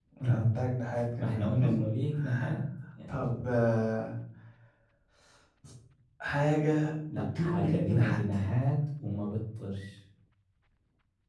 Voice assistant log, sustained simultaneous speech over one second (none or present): present